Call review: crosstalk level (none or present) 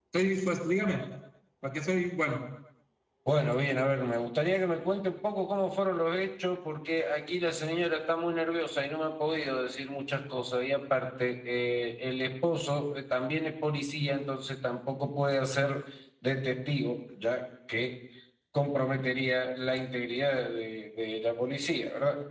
none